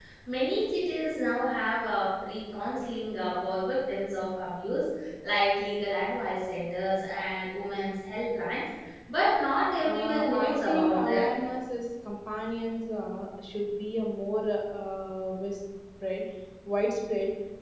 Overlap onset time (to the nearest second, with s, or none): 10 s